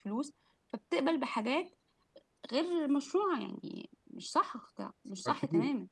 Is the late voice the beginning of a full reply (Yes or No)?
Yes